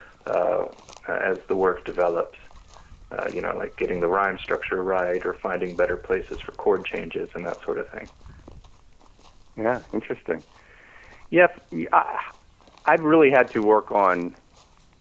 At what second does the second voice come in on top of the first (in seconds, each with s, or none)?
none